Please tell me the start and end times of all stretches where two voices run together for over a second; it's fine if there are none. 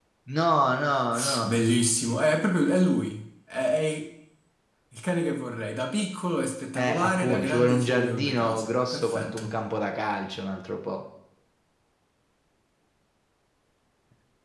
6.8-9.5

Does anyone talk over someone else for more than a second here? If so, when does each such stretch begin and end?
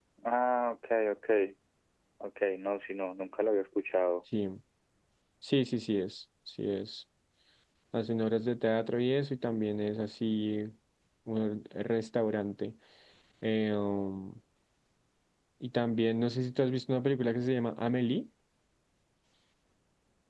none

